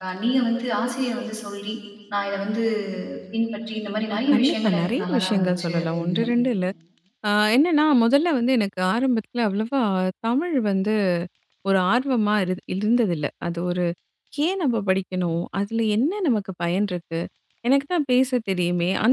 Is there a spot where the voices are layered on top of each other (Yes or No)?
Yes